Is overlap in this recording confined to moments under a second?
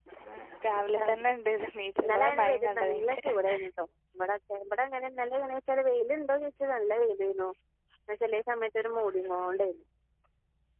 No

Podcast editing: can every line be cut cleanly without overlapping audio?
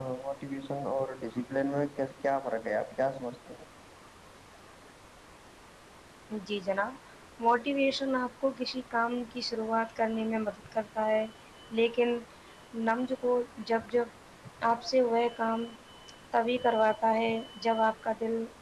Yes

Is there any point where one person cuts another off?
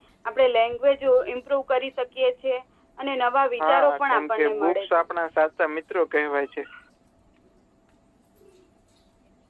Yes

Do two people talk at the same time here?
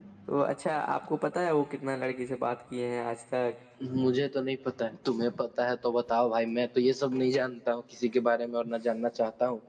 No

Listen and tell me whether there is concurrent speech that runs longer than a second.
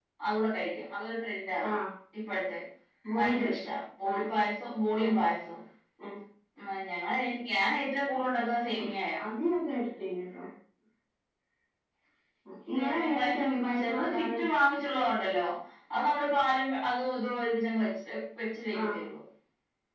Yes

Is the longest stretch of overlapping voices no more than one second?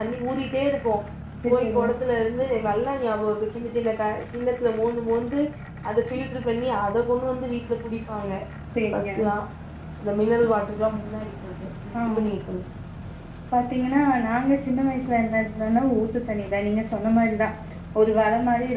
Yes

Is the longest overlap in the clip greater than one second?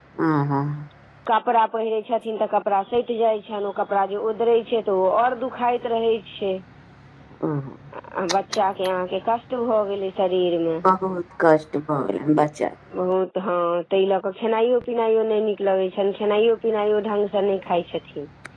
No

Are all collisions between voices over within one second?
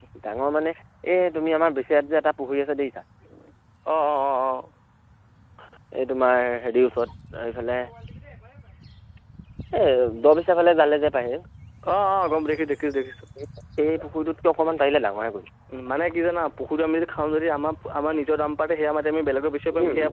Yes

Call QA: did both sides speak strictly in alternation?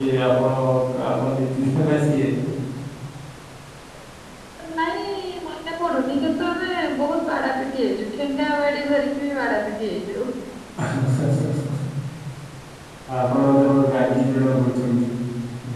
Yes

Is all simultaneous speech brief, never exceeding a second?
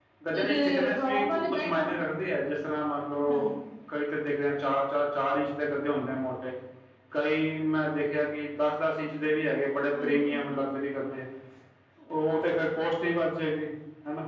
No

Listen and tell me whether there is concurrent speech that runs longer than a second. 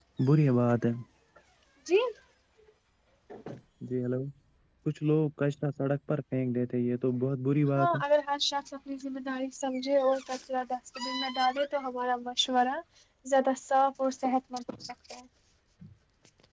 No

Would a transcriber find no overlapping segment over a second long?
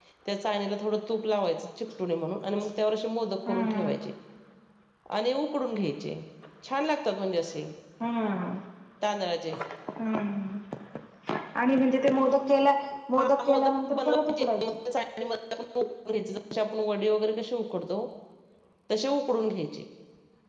No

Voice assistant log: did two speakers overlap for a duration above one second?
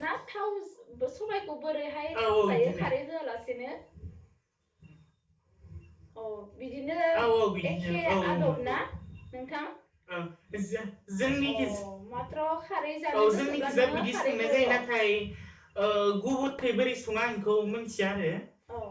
Yes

